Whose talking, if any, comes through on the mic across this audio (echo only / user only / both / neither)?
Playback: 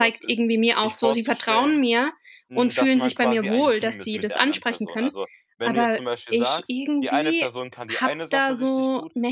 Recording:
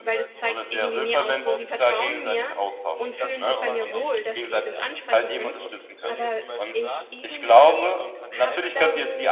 both